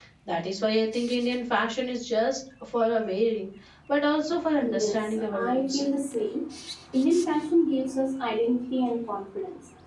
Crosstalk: present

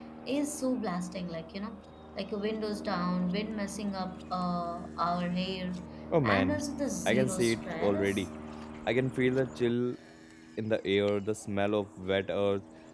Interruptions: present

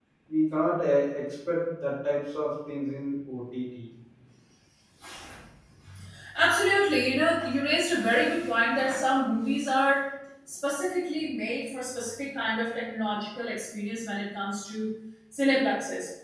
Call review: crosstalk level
none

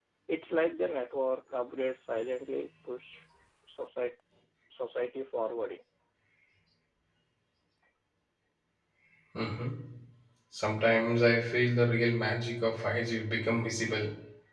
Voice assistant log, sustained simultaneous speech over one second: none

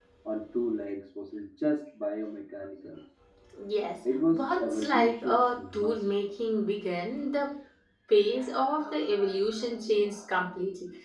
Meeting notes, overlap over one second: present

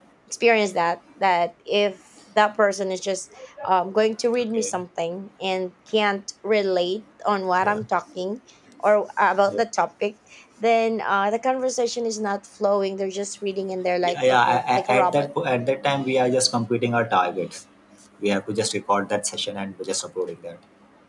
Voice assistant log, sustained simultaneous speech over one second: present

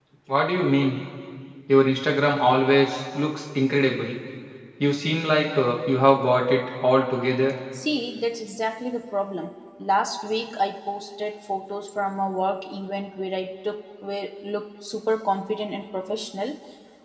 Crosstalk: none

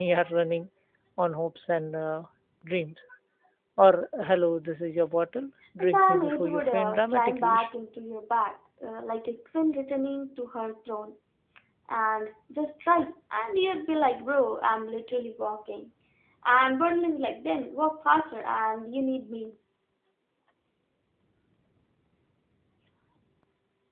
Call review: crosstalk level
present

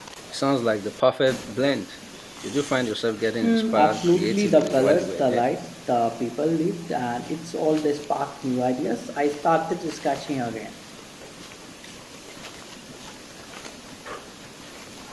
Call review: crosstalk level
present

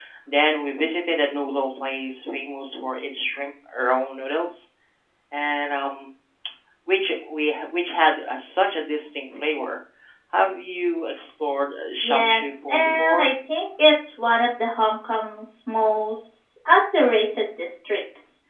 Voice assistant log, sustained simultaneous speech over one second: present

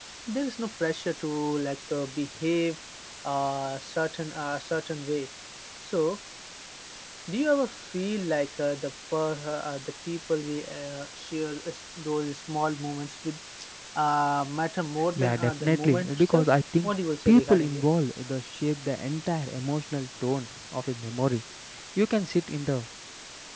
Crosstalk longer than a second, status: present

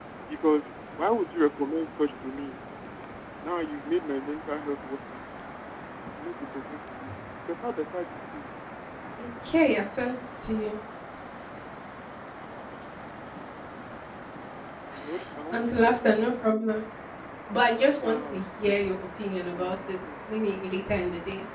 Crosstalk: present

